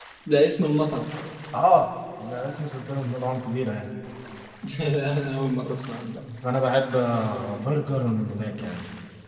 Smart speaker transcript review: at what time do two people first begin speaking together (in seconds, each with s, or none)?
none